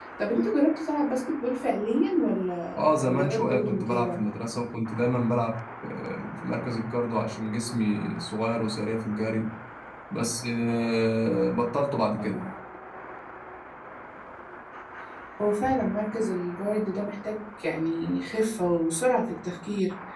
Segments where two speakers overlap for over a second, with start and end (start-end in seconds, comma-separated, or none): 2.8-4.2